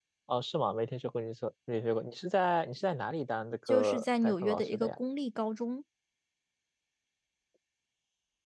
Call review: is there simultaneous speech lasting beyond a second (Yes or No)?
Yes